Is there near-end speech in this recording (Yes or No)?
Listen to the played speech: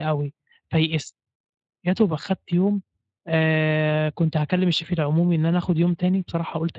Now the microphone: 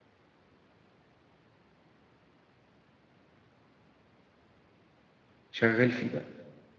Yes